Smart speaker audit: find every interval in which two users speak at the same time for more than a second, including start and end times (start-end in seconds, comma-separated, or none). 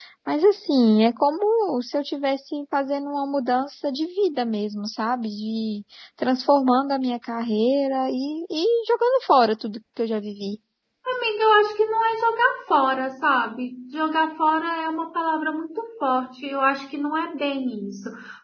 none